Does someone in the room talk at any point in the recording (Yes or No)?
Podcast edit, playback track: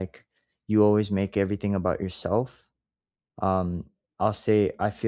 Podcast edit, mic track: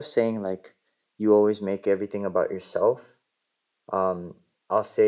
No